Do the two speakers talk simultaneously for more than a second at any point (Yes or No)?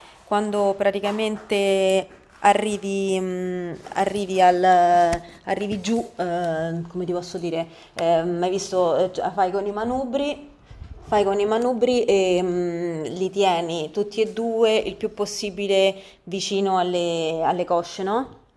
No